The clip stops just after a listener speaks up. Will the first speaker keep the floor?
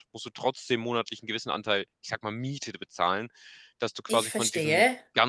Yes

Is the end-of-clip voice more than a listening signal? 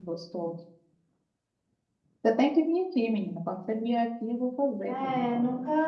Yes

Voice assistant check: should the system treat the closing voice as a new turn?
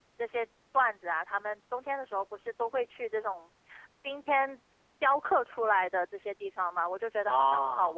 No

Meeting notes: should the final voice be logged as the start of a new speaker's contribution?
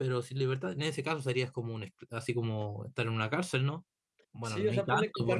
Yes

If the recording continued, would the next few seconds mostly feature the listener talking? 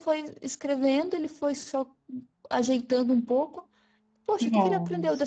No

